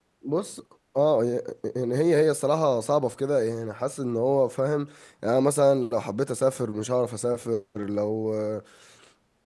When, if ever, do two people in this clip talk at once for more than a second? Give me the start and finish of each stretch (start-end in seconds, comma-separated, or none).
none